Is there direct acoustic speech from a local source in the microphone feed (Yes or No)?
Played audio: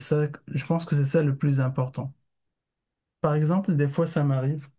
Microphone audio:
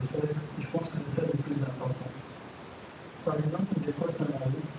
No